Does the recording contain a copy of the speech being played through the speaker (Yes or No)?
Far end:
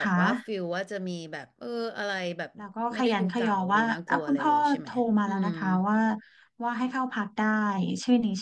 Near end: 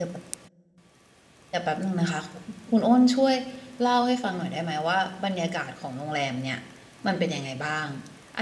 No